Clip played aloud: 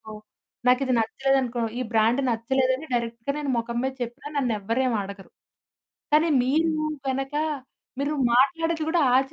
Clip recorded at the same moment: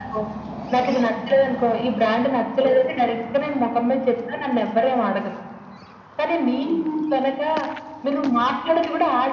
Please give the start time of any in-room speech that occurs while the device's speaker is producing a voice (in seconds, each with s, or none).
none